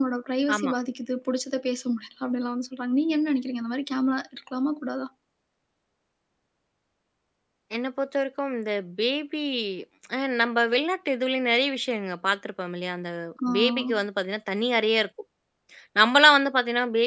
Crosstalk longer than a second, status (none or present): none